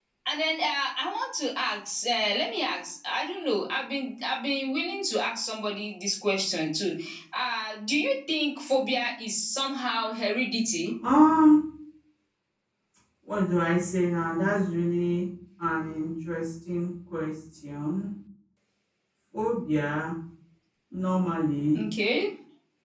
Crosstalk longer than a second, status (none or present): none